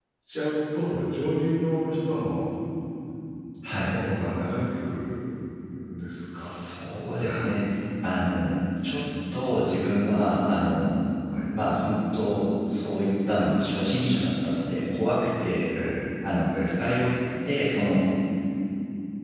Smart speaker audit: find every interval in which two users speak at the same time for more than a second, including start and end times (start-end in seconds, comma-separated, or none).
none